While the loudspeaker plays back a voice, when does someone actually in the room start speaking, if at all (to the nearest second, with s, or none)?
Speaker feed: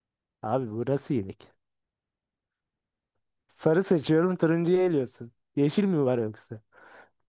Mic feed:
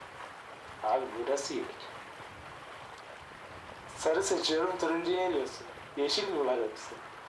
none